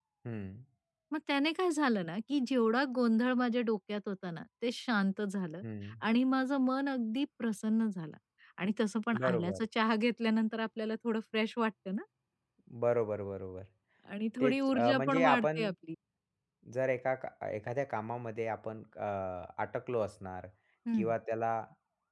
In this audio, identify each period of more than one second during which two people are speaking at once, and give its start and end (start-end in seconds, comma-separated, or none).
14.4-15.6